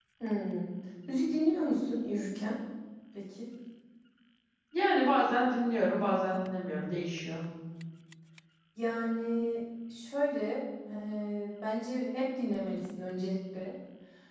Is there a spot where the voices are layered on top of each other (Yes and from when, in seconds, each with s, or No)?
No